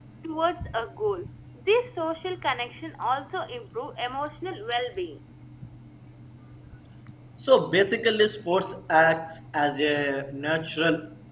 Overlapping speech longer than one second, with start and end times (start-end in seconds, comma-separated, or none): none